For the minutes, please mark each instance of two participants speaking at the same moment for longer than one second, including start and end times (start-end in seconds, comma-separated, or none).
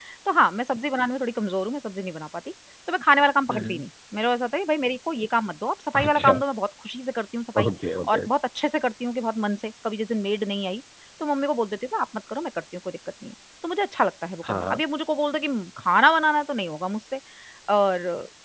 none